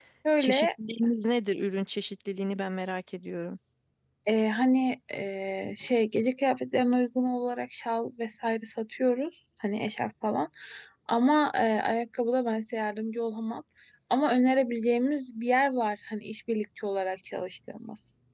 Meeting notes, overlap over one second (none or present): none